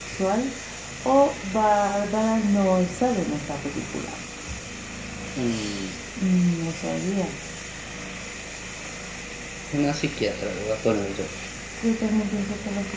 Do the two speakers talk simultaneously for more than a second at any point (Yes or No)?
No